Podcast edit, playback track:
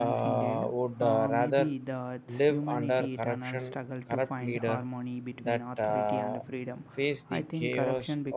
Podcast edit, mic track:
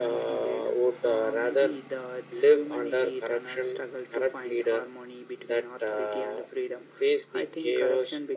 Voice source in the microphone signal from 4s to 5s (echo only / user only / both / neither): echo only